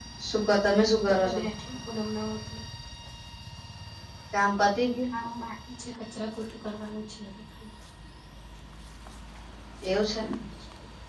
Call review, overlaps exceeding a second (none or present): none